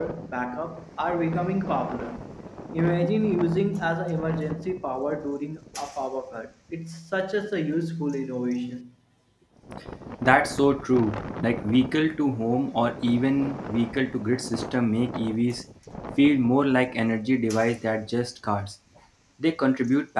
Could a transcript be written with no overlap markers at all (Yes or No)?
Yes